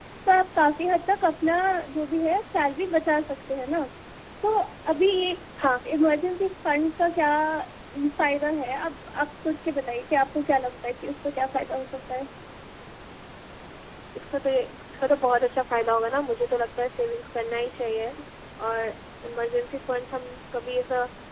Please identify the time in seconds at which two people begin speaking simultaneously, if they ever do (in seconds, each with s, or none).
none